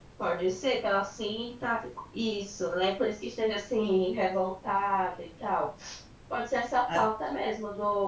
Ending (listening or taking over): listening